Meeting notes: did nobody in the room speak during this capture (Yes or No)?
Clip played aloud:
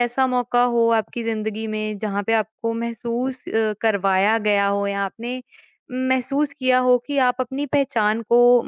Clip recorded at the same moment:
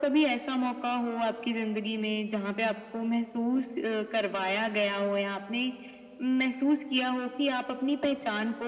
Yes